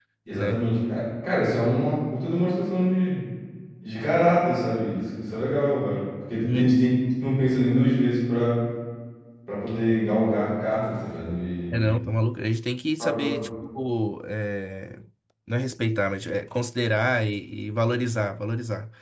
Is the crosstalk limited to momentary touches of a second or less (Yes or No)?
Yes